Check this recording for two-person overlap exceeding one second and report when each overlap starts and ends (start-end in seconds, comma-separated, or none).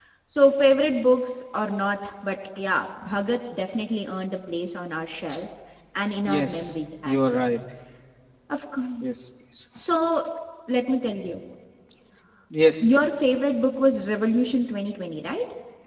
6.2-7.5